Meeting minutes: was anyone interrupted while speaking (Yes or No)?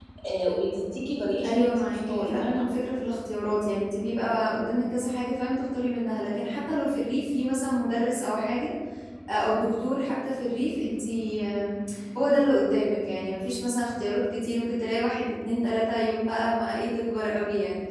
Yes